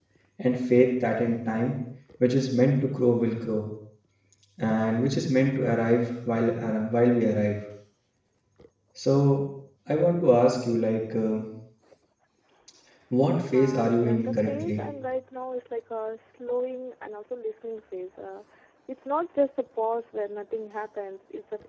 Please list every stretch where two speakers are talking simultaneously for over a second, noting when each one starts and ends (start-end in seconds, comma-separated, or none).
13.5-14.8